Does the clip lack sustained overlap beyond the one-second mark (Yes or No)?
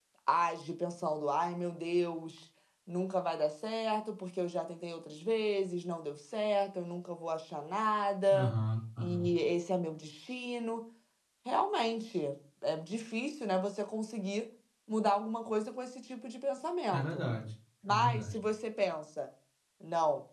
Yes